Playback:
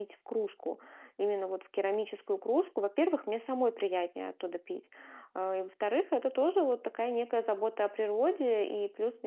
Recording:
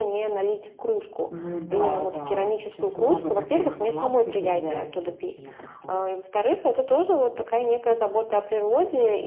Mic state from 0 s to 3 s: both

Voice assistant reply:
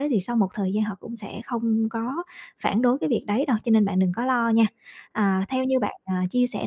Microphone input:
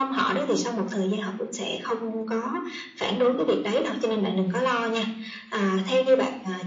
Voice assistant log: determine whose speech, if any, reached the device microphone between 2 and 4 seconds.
echo only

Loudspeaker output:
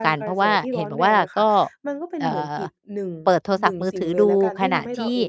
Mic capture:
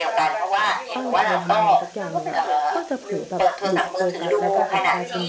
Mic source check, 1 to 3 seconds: both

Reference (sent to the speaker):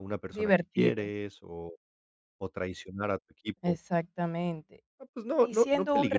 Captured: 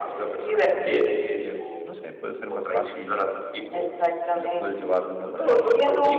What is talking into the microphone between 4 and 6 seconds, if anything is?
both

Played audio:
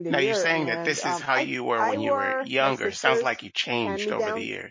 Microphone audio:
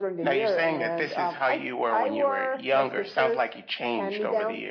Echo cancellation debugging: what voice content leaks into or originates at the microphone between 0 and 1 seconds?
echo only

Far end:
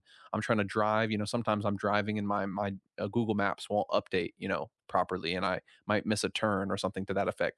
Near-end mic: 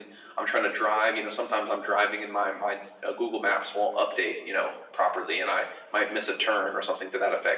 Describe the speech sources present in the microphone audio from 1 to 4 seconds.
echo only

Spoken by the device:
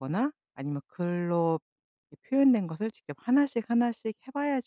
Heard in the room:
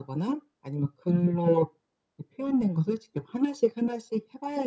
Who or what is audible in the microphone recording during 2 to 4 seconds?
echo only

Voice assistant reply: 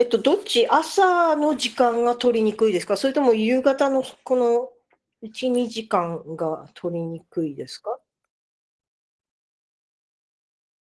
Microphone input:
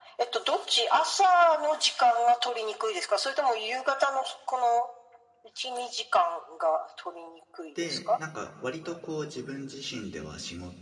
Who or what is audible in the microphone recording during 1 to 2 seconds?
echo only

